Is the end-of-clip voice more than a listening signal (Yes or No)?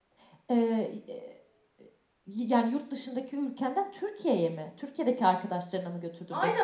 Yes